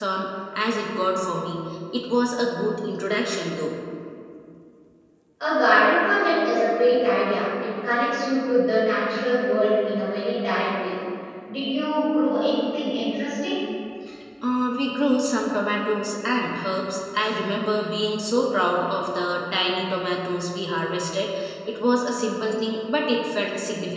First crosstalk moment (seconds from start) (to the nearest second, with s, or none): none